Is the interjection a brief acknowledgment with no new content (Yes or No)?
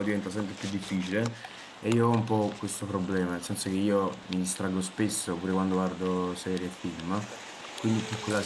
Yes